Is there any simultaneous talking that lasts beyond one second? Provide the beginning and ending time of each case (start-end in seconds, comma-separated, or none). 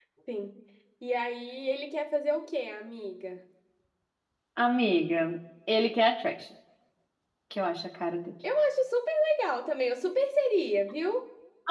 none